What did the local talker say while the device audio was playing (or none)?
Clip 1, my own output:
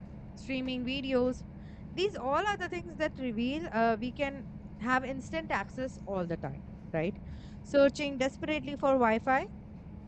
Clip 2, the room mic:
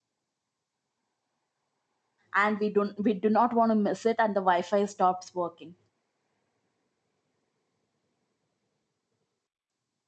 and we don't we do not want to miss it and the wi-fi stops working